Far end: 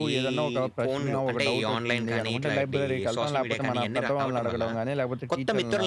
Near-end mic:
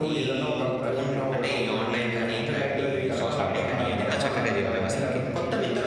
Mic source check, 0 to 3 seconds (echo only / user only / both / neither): echo only